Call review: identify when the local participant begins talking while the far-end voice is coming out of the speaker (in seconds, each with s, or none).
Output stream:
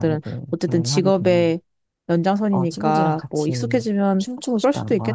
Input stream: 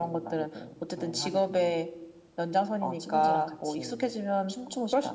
none